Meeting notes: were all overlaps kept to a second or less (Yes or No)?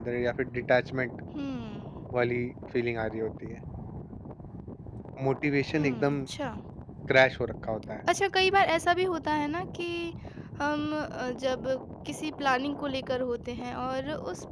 Yes